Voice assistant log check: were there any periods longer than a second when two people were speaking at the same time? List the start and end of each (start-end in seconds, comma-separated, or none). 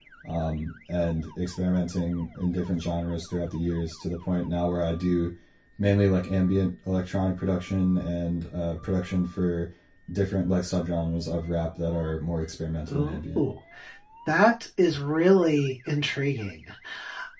none